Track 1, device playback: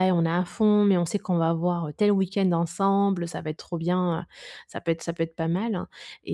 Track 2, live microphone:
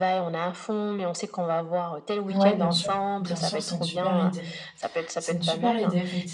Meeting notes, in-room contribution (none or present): present